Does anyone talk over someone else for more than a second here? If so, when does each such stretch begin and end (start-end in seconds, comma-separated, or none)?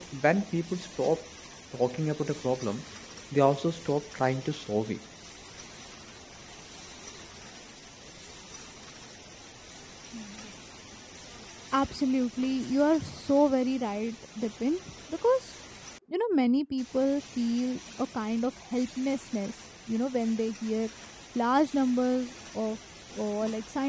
none